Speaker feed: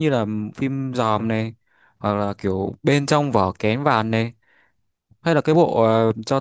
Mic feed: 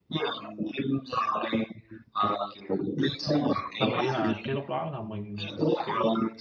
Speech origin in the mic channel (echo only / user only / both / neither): both